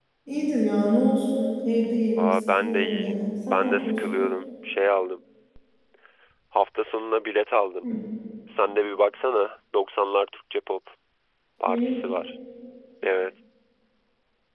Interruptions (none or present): present